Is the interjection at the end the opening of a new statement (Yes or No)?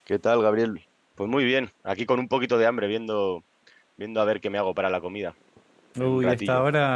Yes